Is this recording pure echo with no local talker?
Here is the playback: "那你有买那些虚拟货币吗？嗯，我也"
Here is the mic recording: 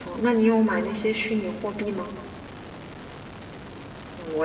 Yes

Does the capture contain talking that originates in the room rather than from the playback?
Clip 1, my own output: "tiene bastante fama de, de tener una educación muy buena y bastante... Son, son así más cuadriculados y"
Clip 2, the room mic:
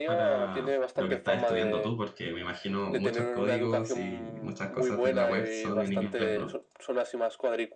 Yes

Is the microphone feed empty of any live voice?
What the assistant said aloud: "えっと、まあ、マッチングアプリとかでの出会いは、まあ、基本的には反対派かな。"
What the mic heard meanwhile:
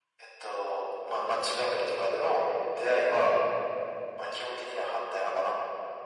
Yes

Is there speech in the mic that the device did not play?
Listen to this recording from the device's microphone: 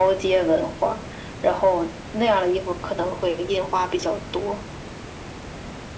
No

